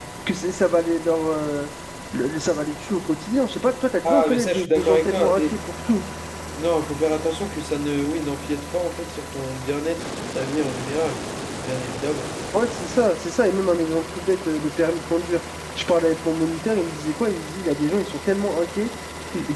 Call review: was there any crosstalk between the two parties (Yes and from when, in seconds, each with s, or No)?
Yes, from 4.0 s